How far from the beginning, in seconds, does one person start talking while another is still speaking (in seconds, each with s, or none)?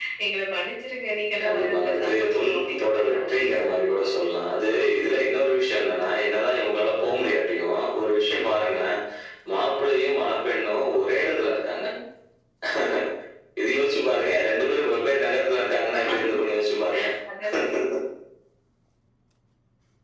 1.4 s